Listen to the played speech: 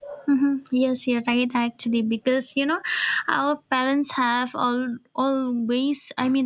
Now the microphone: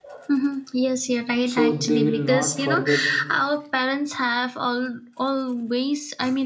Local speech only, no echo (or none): so they will not forget